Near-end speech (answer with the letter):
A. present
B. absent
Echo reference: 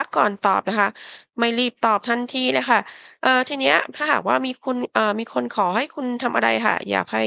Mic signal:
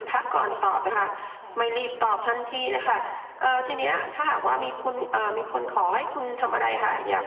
A